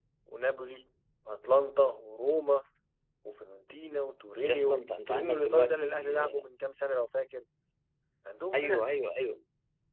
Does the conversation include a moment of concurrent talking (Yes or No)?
Yes